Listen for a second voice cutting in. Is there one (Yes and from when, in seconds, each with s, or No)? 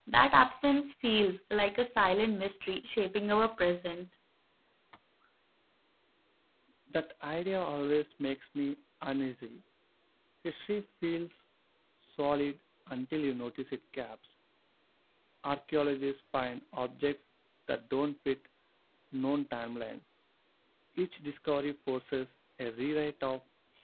No